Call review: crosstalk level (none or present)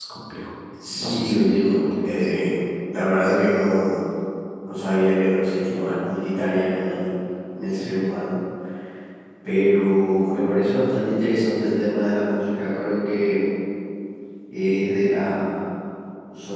present